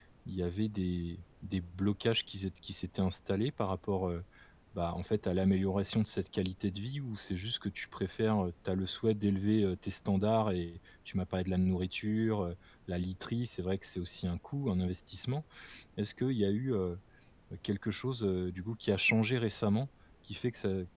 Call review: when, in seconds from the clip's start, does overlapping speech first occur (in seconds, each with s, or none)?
none